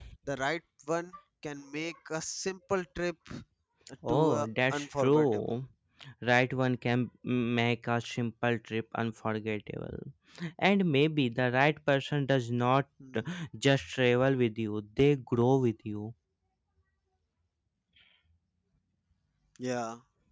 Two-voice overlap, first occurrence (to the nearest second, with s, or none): 4 s